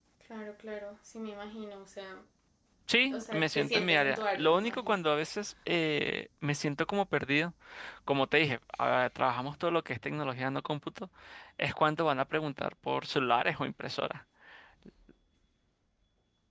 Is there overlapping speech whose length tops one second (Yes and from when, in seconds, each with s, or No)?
Yes, from 3.1 s